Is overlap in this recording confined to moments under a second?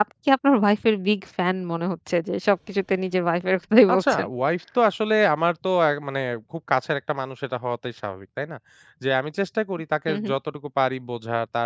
Yes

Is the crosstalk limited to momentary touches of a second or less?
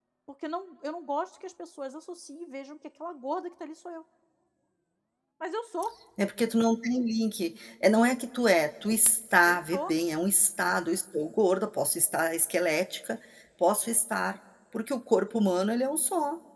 Yes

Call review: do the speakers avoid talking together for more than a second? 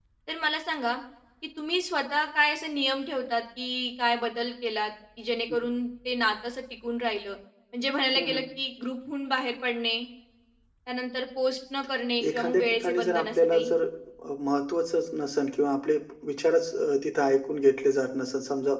No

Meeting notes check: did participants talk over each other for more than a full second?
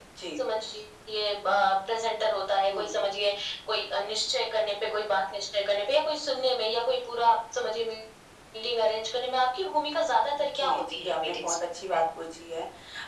Yes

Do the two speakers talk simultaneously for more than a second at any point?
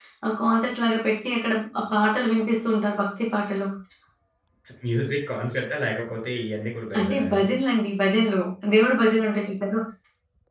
No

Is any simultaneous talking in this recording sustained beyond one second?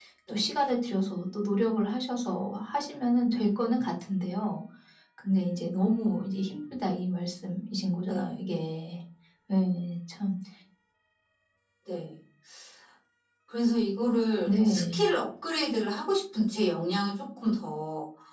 No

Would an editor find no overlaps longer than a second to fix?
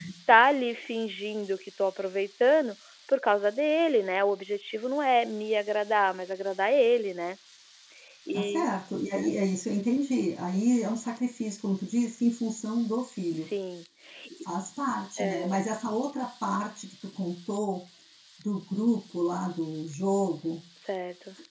Yes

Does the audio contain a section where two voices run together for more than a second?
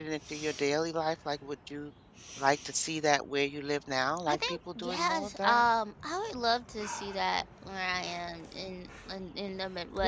Yes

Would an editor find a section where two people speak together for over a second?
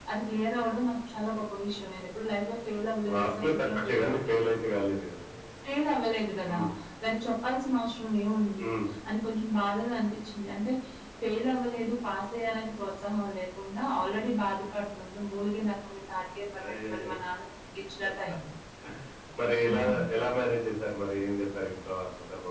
Yes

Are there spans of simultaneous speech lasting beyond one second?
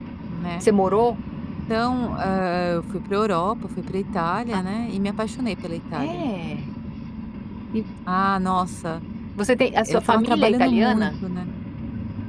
Yes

